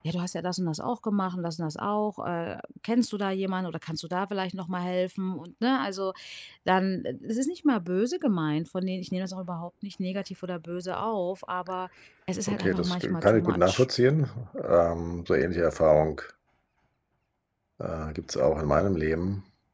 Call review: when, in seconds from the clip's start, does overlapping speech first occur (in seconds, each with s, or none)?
12.5 s